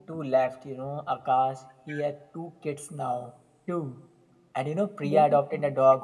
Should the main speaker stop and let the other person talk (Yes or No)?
No